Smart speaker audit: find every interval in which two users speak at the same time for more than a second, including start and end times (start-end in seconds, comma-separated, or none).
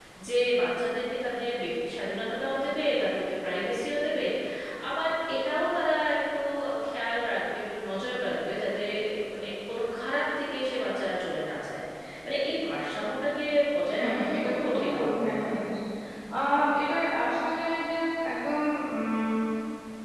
14.0-15.6